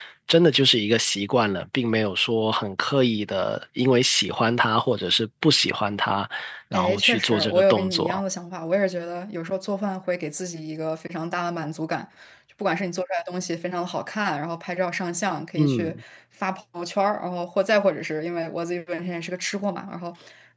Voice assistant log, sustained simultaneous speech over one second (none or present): present